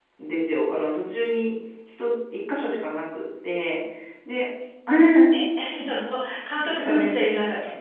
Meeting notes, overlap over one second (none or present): none